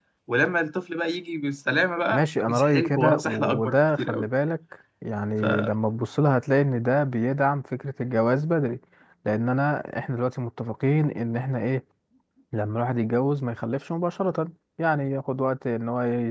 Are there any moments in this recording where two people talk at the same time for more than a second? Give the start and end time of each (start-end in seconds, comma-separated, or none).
2.1-4.3